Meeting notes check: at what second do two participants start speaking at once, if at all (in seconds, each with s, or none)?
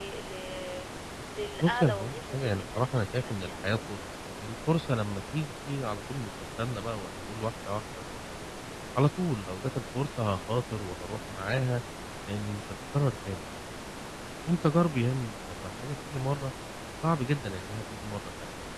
1.6 s